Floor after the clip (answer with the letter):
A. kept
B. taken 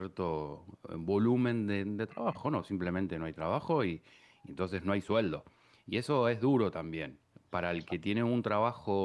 A